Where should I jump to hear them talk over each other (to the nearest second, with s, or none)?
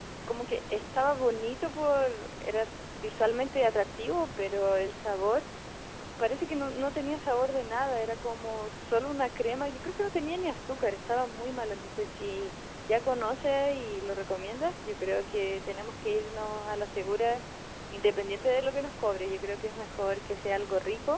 none